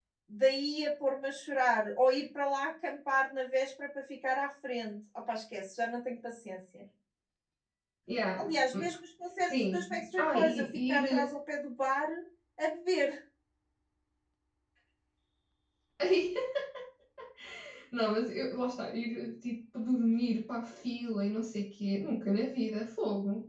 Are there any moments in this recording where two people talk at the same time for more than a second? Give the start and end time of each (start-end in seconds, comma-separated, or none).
9.4-11.3